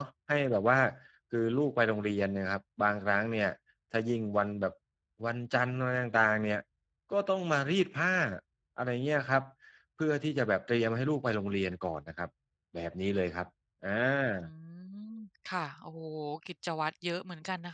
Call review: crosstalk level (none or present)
none